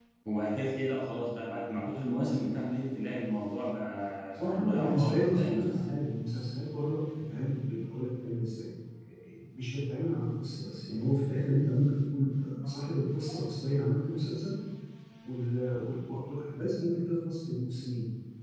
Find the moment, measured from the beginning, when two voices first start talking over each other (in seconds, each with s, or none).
4.3 s